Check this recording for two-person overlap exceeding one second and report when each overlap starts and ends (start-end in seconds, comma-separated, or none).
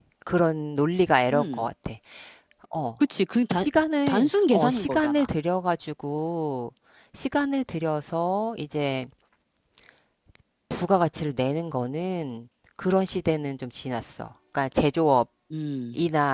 4.1-5.3